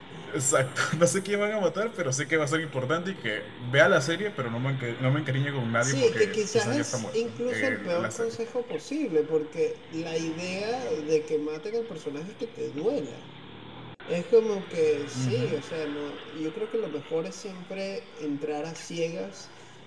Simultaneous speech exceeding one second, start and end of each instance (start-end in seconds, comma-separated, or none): 5.8-8.4